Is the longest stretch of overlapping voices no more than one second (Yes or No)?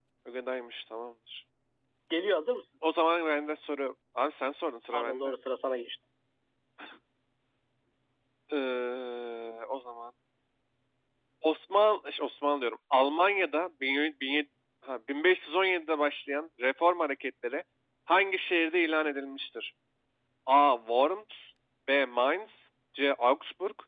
Yes